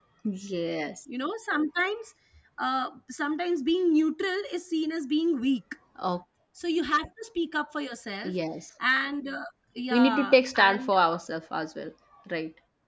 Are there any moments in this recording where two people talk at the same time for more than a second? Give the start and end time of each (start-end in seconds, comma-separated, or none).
9.9-11.2